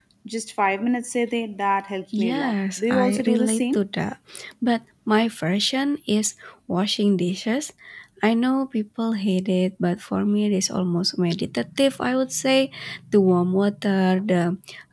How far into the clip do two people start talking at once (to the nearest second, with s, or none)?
2 s